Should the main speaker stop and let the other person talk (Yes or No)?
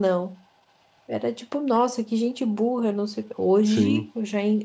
No